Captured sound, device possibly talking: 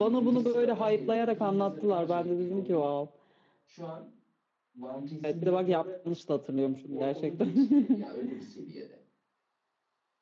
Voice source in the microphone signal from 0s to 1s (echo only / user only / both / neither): both